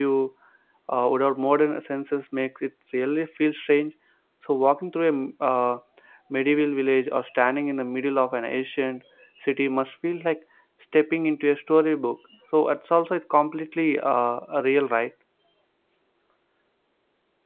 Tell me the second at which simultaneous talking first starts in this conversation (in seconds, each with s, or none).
none